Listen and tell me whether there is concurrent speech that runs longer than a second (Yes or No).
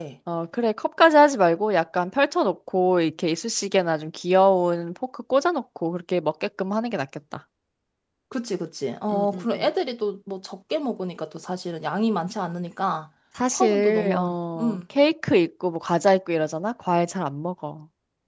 Yes